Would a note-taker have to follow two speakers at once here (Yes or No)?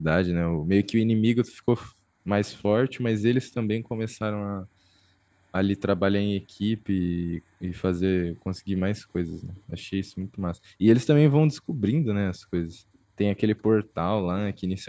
No